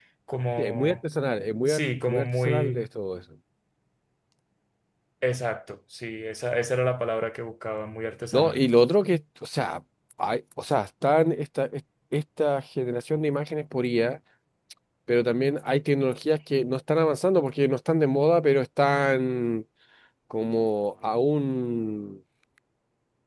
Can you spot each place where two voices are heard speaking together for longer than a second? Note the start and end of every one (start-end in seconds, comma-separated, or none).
1.7-2.9